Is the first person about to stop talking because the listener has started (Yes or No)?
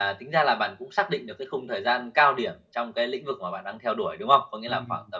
No